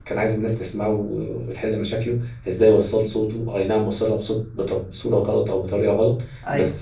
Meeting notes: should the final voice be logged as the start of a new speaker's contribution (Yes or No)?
No